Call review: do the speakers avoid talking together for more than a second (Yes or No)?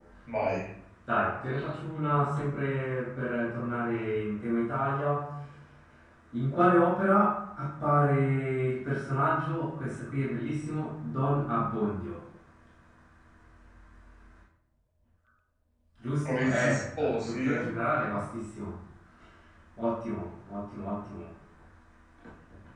No